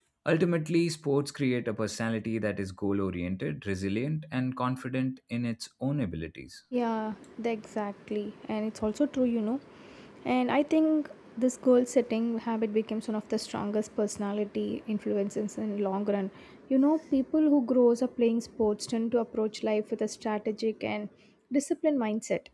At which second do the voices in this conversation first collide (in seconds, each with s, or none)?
none